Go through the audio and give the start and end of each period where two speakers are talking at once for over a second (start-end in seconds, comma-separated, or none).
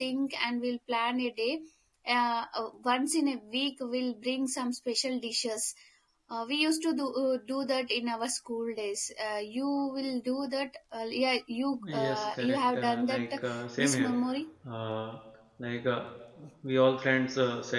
11.9-13.4